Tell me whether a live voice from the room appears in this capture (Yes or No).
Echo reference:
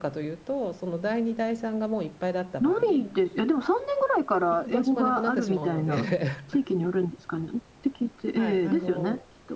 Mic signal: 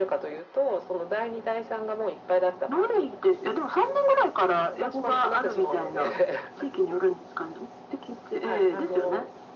No